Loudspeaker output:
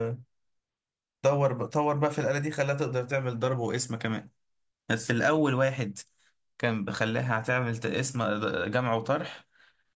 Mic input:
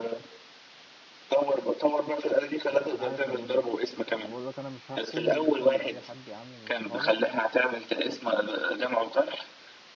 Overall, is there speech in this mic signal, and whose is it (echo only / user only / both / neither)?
both